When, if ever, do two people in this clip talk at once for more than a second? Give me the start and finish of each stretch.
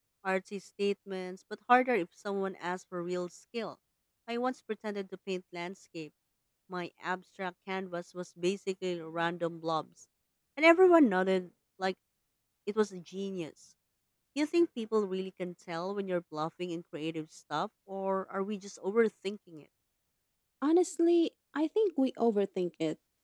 none

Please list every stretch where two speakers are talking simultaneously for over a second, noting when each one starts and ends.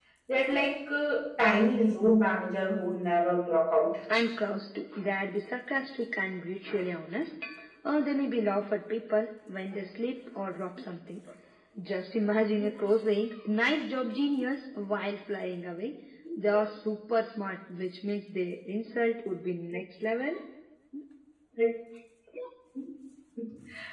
none

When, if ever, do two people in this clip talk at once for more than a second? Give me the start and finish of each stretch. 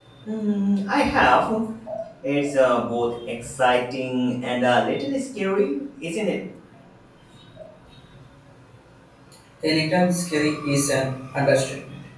none

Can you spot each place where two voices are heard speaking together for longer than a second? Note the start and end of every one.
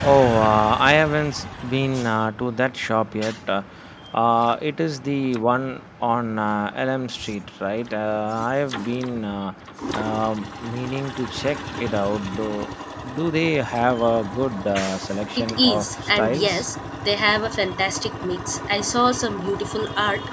15.4-16.7

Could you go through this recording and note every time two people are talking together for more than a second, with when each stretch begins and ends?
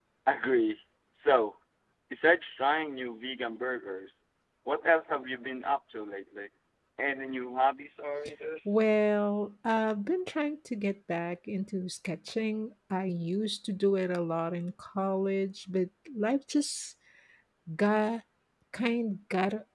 none

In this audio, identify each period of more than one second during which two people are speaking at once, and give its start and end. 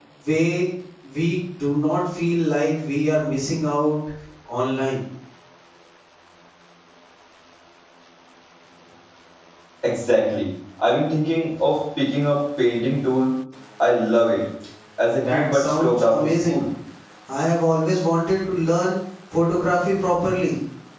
15.2-16.6

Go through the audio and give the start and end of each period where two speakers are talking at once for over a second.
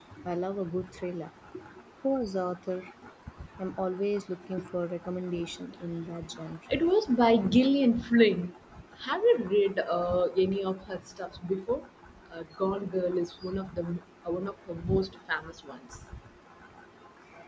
none

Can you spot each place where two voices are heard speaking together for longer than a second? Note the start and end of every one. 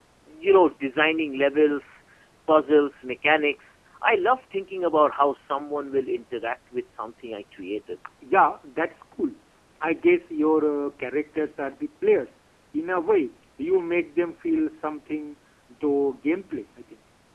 none

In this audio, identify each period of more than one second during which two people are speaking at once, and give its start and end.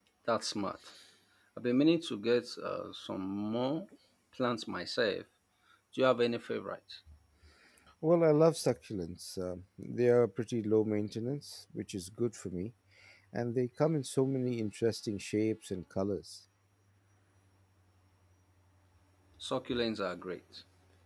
none

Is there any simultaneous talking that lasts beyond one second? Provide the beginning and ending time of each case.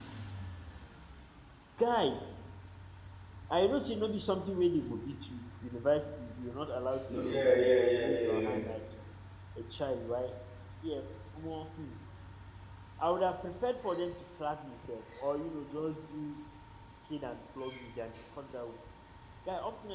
7.1-8.6

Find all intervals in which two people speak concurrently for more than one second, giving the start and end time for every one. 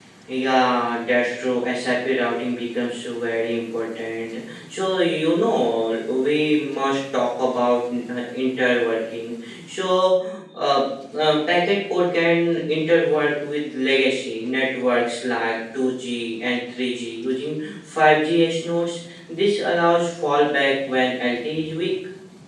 none

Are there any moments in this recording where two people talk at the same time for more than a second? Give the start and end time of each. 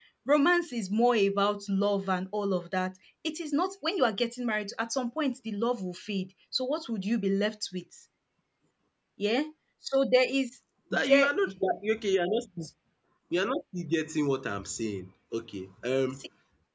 none

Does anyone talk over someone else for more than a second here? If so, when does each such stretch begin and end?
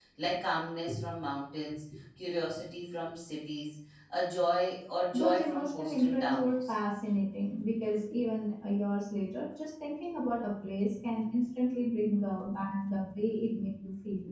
5.1-6.7

